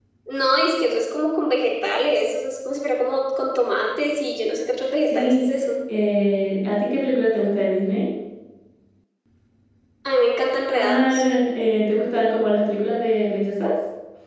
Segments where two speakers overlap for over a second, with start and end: none

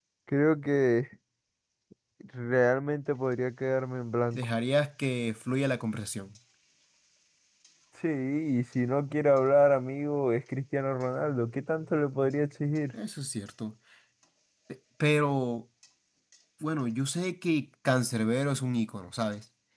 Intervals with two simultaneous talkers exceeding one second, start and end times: none

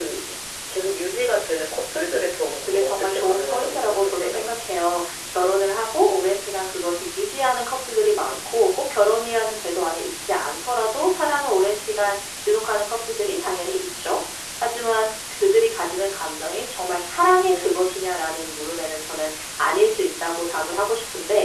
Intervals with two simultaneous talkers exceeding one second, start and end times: 2.7-4.5

